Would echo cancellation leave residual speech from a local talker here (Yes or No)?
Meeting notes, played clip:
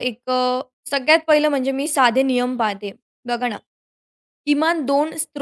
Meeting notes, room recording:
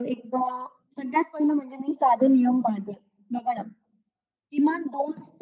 No